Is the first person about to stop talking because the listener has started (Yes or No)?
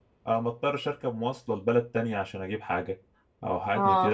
No